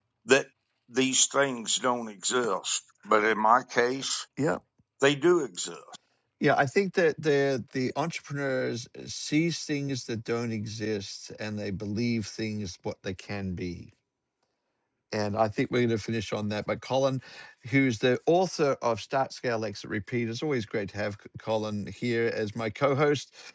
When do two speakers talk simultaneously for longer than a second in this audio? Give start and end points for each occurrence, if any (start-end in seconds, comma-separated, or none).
none